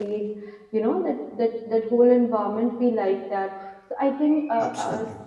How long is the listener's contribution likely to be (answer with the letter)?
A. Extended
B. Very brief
B